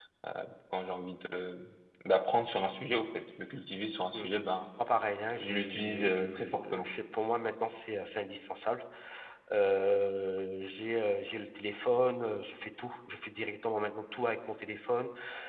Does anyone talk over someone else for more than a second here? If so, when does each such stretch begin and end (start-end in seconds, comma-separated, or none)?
5.4-6.8